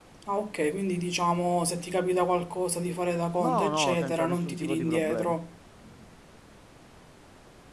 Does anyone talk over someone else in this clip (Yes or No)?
Yes